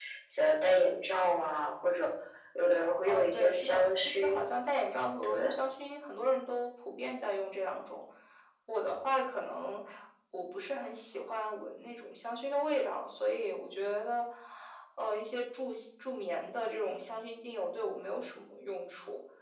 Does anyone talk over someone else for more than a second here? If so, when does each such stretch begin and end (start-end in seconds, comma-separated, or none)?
3.1-4.5